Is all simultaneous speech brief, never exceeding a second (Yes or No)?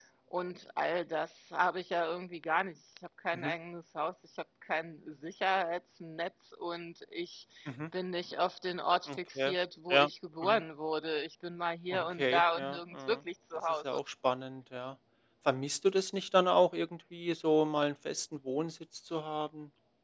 No